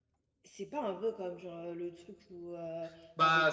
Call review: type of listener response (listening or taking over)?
listening